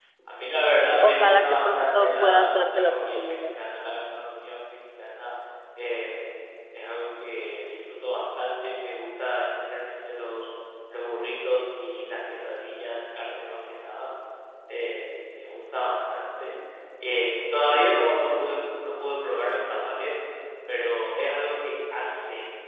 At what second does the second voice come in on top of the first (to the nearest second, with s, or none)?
1 s